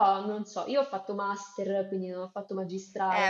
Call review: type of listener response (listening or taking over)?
taking over